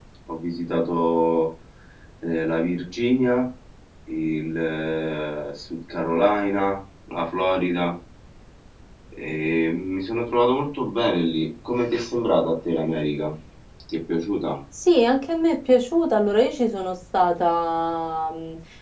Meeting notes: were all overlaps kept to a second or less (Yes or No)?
Yes